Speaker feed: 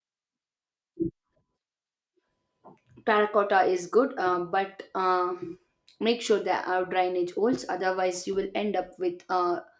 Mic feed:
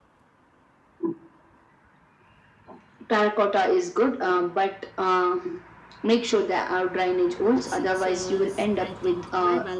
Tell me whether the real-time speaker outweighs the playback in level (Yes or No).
No